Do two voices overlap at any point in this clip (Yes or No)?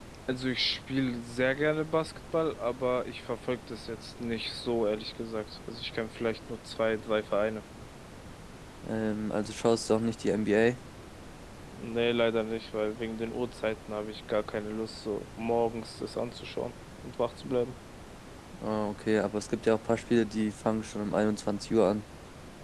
No